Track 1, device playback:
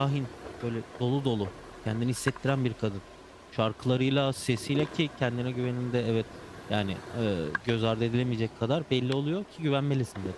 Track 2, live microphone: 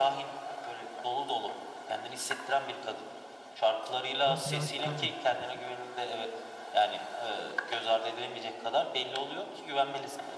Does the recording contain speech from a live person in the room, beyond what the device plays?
Yes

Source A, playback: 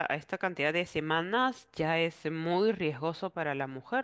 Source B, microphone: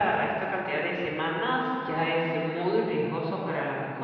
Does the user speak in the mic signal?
No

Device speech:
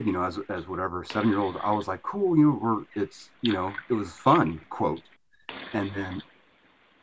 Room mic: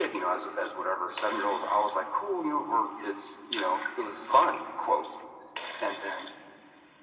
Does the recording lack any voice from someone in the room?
Yes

